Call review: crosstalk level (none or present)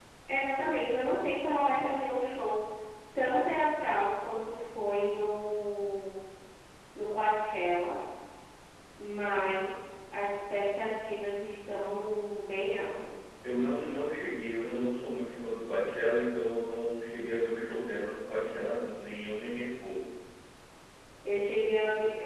none